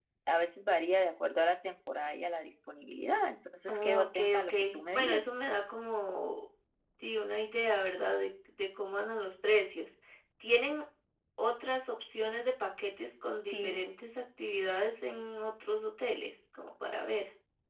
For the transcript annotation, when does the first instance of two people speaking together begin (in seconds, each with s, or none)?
3.7 s